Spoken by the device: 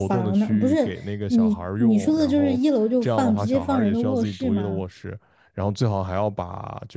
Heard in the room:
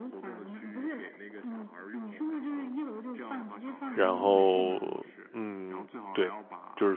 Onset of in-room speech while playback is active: 4 s

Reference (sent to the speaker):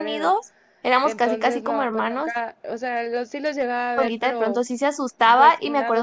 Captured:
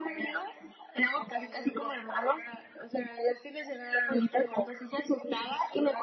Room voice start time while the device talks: none

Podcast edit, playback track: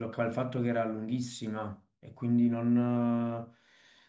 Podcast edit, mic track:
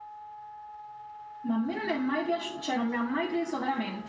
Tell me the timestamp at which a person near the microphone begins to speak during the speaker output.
1 s

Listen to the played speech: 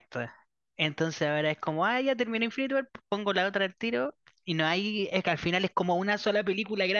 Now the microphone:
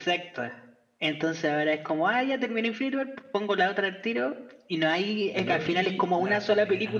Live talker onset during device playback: 5 s

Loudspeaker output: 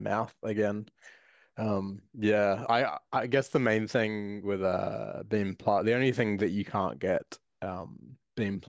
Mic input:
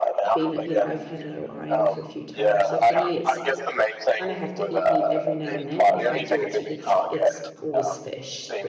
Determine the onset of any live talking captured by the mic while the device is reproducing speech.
0 s

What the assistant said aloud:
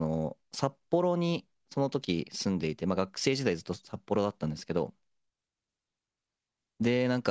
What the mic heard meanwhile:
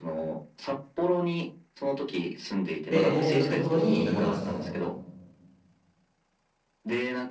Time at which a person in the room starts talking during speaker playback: 3 s

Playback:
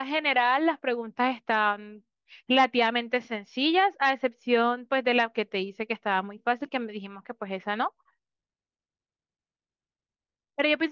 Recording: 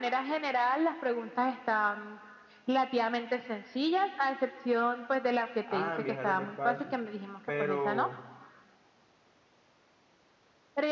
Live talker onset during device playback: 6 s

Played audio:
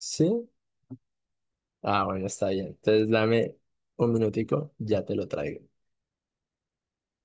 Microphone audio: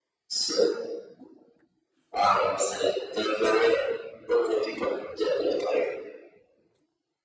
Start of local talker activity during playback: none

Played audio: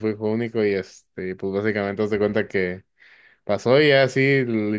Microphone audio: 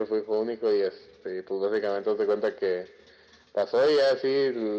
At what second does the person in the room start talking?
none

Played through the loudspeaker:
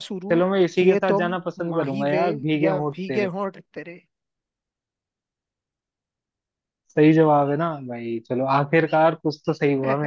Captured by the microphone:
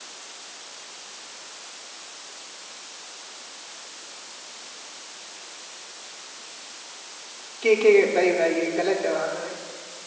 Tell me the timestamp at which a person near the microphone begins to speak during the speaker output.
8 s

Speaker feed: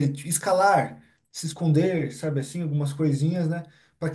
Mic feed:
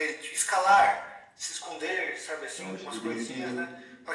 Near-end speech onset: 3 s

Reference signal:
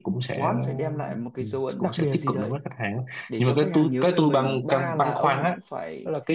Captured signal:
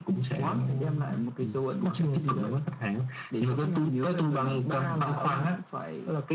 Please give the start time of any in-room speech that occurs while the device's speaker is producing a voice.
none

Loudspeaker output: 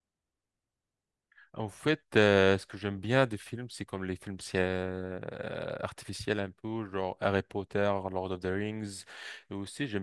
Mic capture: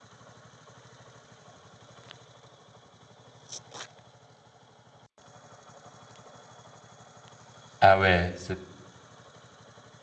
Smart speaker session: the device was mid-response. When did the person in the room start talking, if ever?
8 s

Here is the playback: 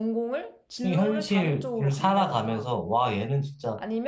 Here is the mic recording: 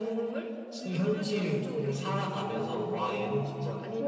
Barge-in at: 2 s

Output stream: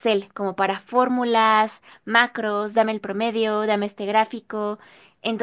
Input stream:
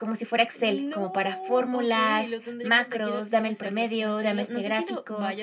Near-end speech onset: 1 s

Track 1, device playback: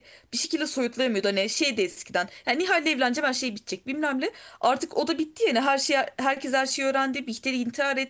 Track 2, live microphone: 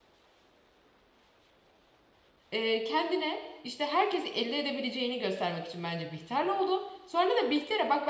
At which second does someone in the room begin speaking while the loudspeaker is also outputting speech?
3 s

